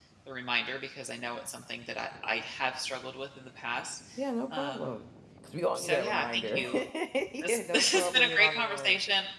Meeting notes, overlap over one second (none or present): present